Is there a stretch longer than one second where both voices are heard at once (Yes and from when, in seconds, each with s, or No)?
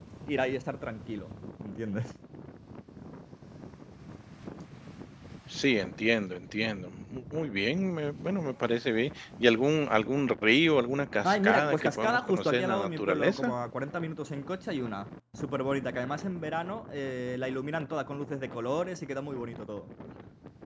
Yes, from 11.2 s